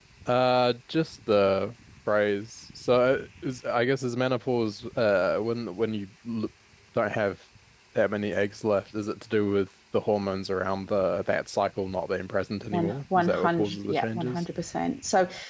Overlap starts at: 12.7 s

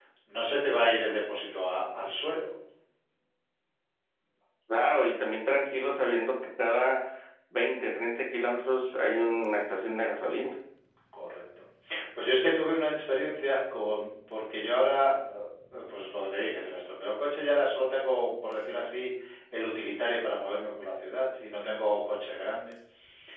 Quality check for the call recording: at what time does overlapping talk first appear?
none

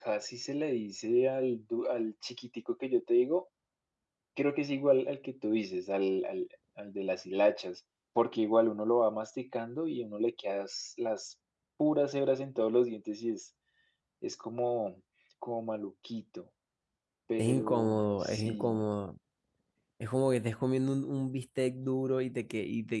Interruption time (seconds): 17.4 s

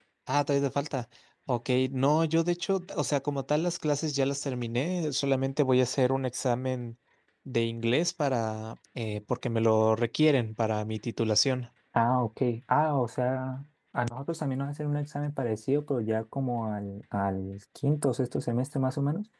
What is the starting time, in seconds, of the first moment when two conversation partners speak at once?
none

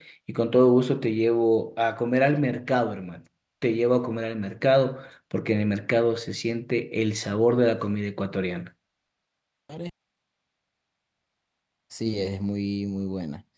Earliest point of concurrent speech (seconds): none

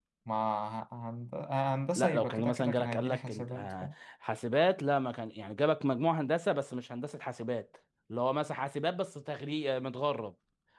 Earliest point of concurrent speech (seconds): 2.0 s

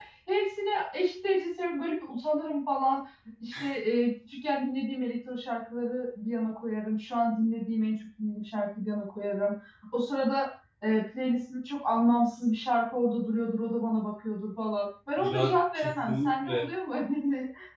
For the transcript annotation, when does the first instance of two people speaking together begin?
15.2 s

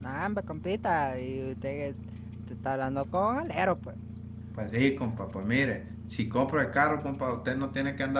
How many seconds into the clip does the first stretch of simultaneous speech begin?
none

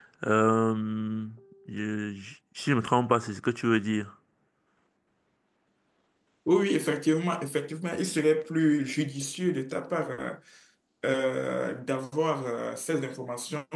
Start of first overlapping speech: none

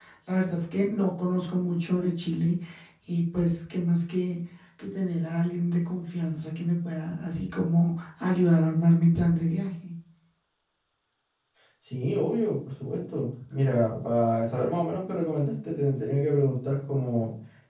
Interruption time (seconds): none

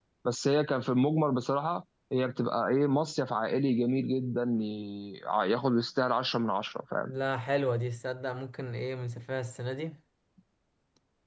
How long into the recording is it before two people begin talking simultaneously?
none

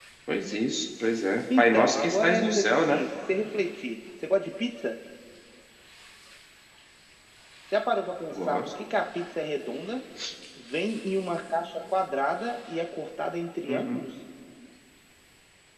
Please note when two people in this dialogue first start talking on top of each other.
1.6 s

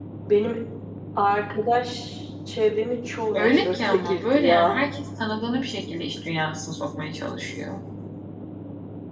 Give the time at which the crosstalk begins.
3.3 s

